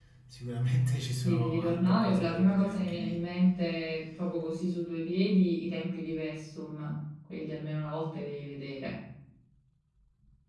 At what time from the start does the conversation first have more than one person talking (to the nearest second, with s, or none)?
1 s